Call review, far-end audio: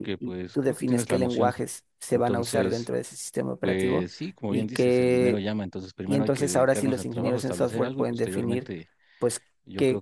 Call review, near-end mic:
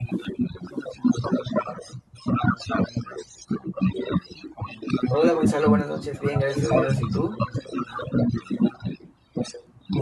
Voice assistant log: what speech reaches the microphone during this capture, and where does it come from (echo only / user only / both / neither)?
both